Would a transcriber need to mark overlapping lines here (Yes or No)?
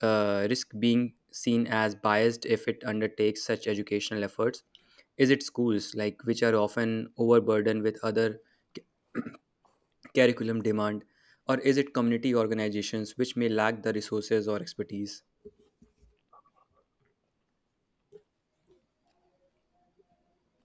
No